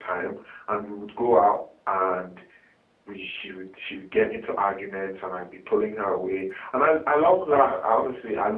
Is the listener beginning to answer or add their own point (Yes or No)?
No